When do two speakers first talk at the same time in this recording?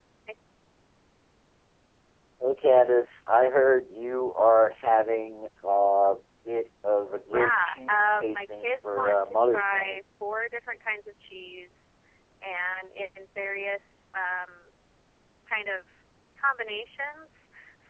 7.2 s

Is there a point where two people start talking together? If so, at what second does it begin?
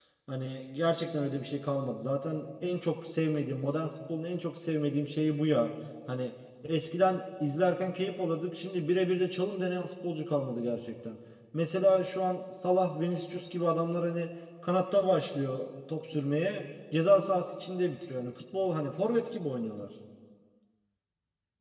none

